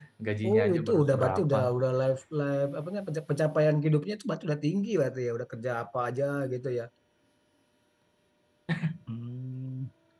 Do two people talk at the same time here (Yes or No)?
Yes